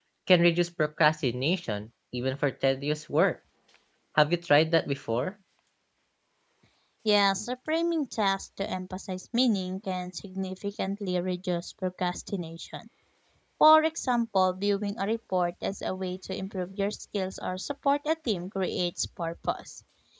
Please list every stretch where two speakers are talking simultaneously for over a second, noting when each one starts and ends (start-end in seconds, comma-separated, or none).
none